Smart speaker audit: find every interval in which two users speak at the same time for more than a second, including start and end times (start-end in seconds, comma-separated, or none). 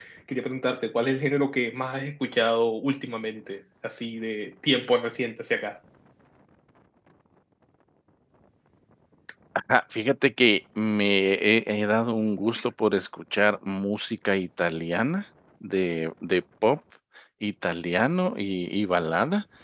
none